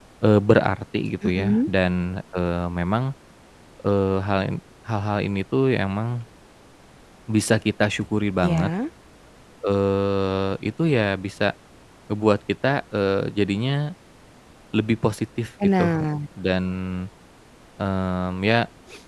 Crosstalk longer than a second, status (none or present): none